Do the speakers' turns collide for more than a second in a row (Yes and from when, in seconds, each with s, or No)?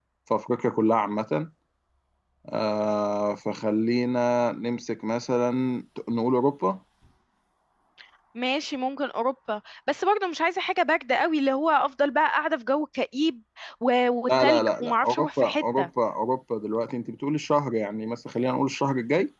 Yes, from 14.3 s